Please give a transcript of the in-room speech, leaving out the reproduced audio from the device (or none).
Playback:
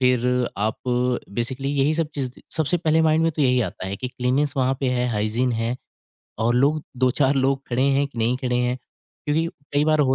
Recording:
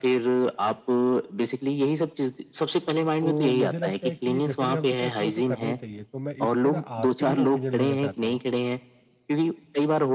तो मुझे लगता है कि डेफ़िनेटली हम सबको एक्सप्लोर तो करना ही चाहिए, तो मैं इसमें ना आपकी भी ओपिनियन लेना चाहता हूँ